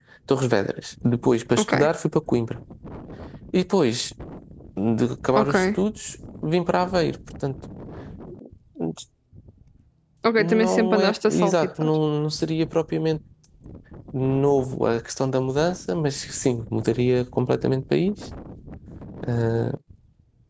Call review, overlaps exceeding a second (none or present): present